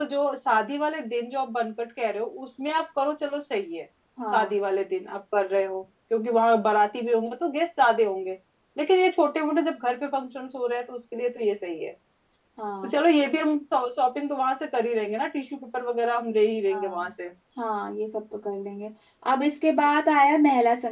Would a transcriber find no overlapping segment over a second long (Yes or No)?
Yes